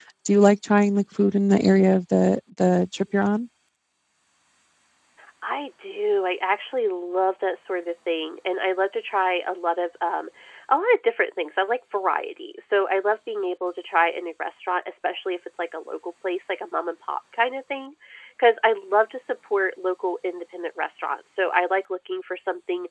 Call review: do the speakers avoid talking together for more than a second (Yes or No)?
Yes